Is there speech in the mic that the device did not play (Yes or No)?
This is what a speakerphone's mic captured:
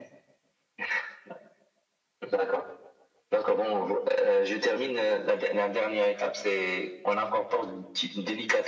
No